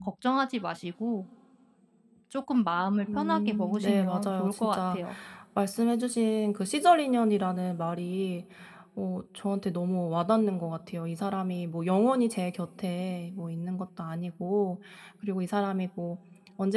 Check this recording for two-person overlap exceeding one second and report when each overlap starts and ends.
3.1-5.0

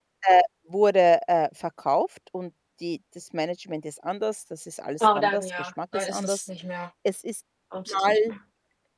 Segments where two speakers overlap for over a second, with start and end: 5.0-6.5

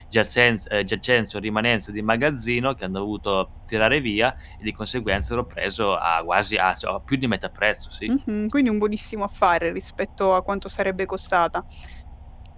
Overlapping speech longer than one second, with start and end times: none

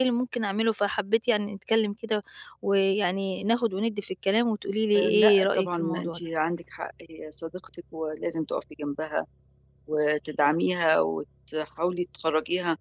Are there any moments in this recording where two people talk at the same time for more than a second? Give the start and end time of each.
5.0-6.2

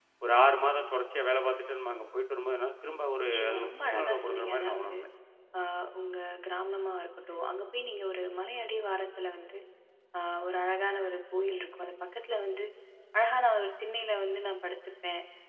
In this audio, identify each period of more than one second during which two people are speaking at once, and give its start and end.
3.2-4.9

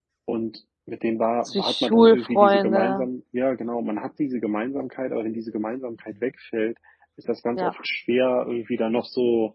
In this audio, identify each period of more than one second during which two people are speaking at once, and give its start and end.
1.4-3.1

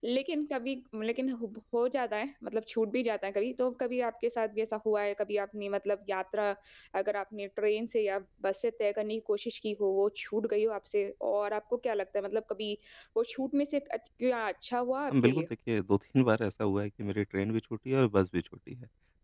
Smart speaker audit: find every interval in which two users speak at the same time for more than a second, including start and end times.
none

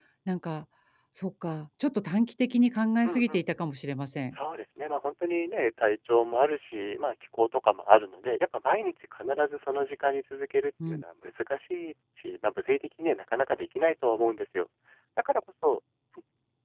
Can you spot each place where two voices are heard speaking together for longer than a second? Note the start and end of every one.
none

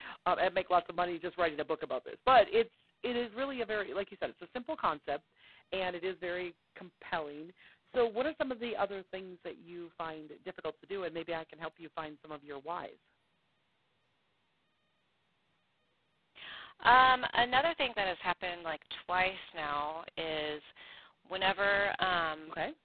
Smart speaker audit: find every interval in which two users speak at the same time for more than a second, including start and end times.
none

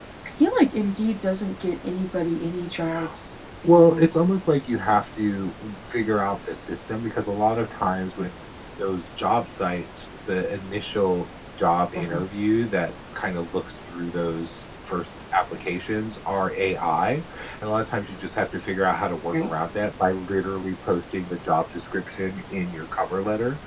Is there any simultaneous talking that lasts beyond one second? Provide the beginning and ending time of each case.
none

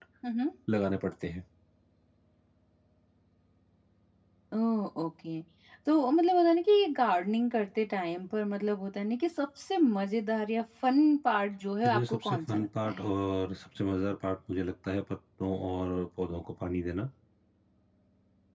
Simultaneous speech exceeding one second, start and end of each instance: 11.8-13.1

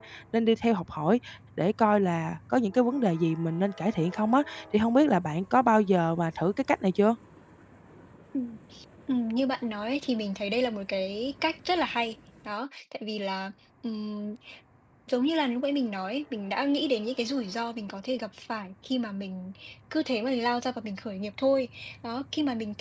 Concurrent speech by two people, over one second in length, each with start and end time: none

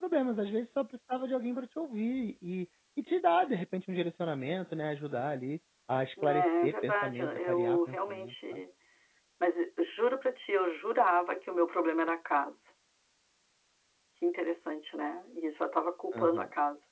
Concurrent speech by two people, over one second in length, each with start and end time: 6.2-8.6

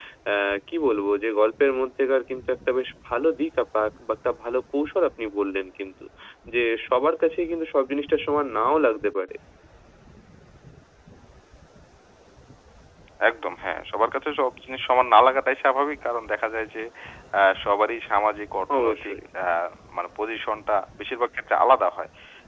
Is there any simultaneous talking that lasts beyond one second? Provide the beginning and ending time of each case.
none

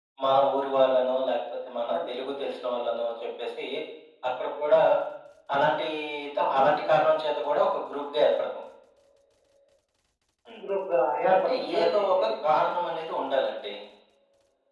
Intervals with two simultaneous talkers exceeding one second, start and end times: 11.3-12.6

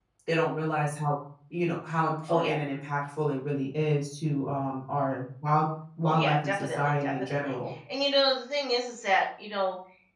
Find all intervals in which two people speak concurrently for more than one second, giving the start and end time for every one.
6.0-7.6

